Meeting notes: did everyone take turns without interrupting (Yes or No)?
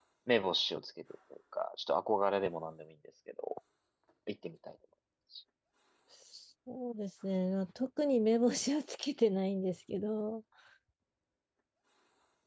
Yes